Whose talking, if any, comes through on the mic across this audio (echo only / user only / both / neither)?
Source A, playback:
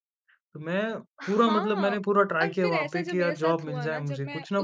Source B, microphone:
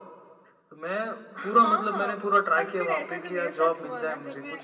echo only